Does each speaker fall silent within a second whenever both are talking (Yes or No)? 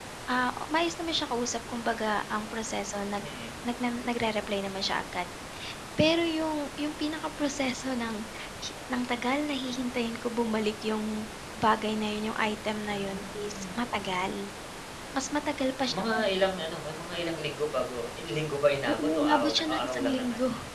No